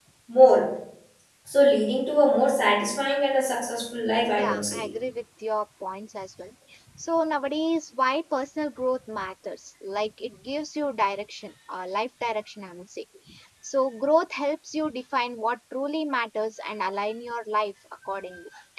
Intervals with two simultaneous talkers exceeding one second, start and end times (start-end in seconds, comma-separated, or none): none